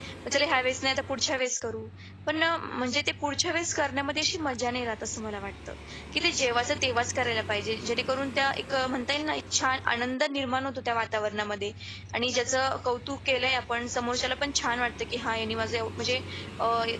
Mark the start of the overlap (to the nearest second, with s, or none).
none